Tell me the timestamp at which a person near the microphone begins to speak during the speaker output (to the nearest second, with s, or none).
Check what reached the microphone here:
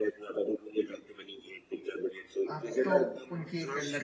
3 s